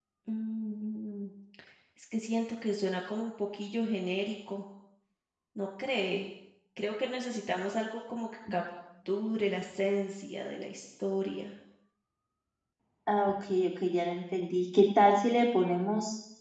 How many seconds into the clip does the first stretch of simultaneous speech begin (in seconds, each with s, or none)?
none